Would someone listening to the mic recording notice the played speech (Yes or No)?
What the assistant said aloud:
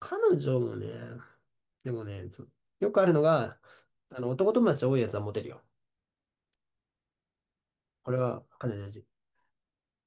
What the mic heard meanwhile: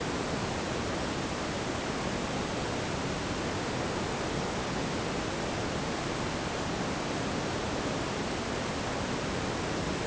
No